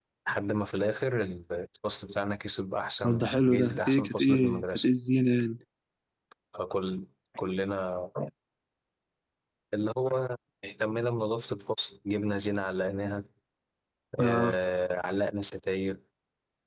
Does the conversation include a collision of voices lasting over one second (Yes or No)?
Yes